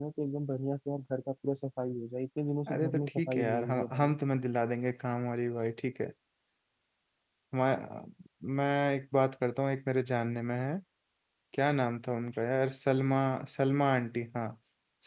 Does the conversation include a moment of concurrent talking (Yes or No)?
Yes